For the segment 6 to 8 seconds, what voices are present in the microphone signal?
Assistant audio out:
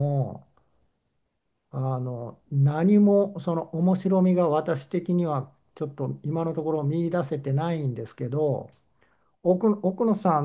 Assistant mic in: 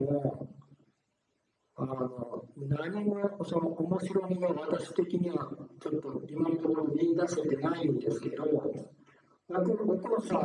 echo only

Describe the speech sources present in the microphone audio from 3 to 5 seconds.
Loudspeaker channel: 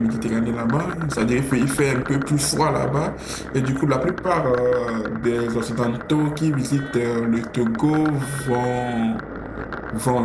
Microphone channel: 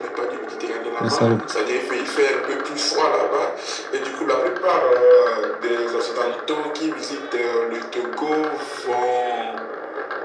echo only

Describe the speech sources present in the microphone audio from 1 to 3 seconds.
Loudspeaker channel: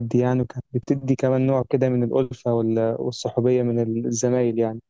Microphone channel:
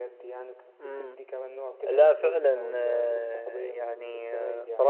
both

